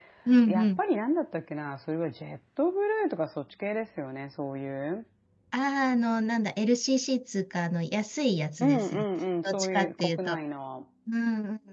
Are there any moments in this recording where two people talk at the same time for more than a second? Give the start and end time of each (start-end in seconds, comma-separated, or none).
8.6-10.4